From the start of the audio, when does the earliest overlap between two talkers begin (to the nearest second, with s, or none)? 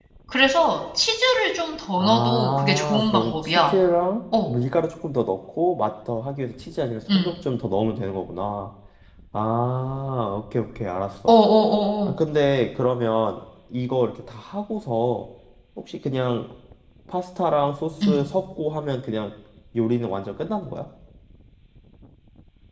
2 s